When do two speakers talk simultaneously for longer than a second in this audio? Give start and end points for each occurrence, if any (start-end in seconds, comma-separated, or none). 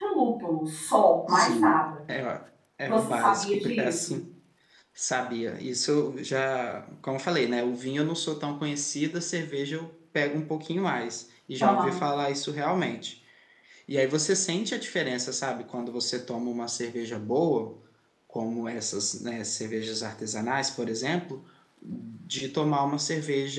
2.9-4.1